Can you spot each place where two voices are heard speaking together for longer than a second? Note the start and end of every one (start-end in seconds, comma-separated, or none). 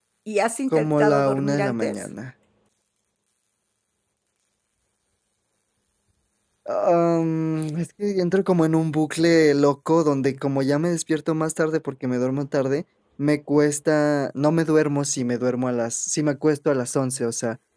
0.7-2.1